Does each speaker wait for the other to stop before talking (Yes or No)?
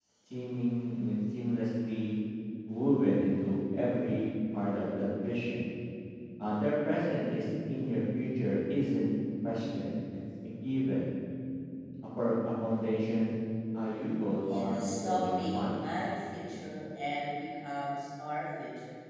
No